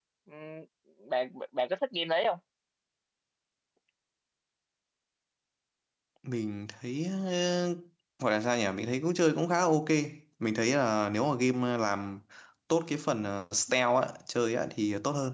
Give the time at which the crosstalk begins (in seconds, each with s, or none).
none